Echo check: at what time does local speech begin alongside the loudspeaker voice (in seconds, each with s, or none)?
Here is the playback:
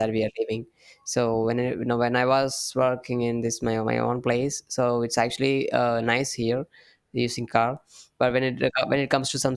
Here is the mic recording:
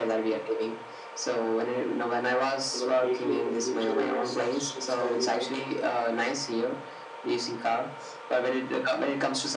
2.7 s